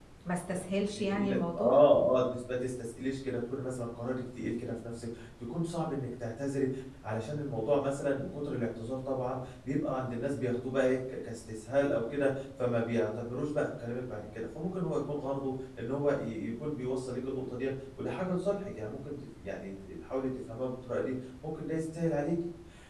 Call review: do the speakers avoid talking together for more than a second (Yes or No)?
No